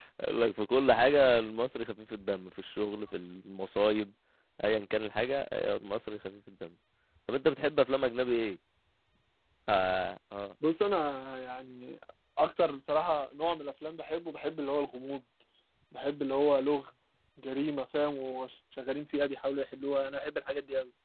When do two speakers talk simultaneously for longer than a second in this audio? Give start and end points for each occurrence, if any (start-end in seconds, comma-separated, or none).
none